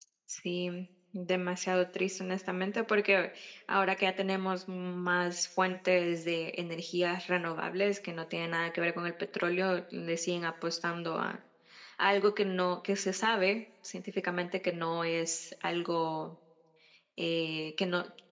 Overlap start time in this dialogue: none

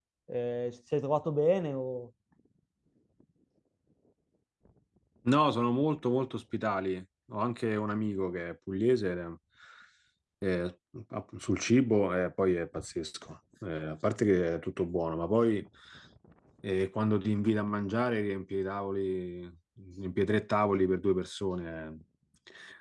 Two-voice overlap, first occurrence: none

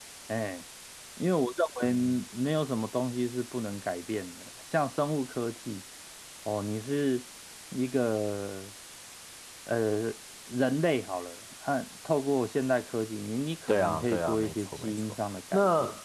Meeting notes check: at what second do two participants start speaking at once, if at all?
13.7 s

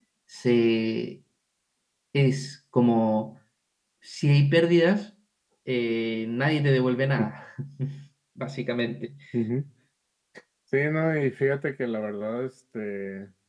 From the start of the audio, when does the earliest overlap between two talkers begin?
none

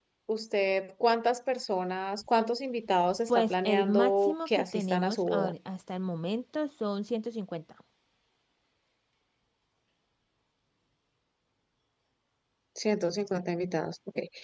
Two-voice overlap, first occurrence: 3.3 s

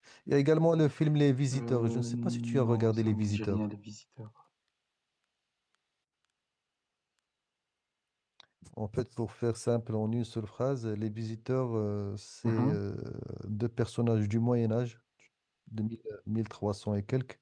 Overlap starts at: 1.5 s

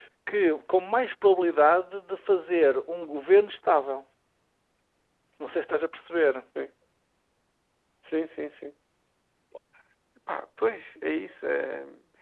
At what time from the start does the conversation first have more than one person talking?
none

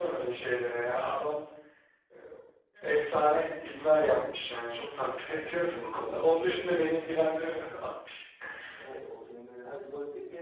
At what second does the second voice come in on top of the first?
5.2 s

